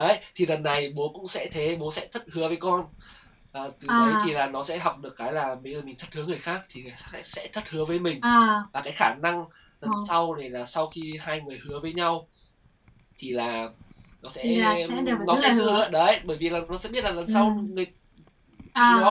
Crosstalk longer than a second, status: present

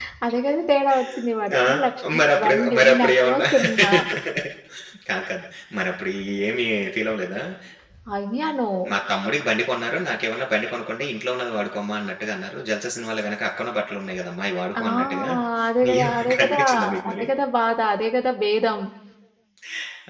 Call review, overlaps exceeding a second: present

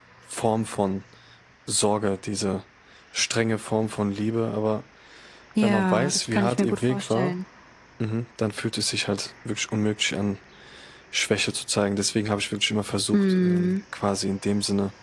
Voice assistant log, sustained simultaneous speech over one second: present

